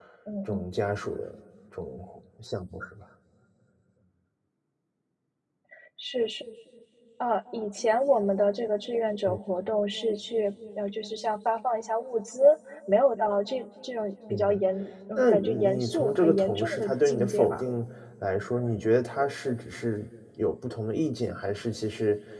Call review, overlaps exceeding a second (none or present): present